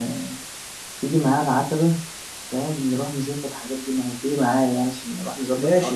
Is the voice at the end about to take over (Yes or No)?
Yes